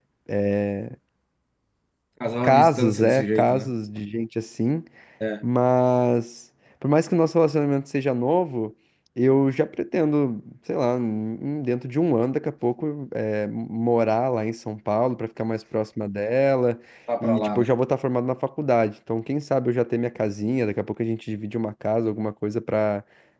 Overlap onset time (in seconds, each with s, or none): 2.4 s